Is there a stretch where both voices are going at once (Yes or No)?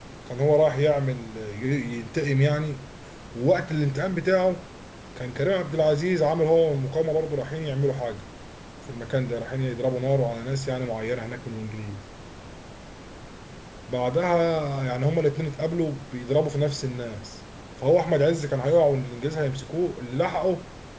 No